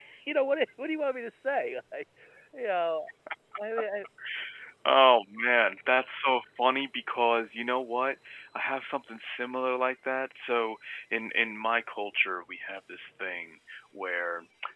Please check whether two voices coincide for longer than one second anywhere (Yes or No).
No